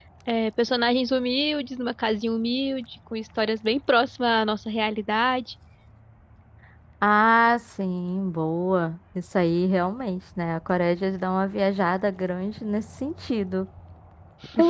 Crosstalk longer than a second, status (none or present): none